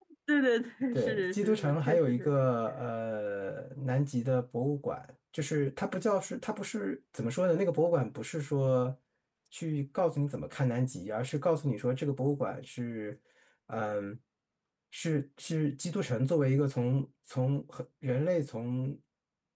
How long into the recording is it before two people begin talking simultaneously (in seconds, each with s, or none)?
0.9 s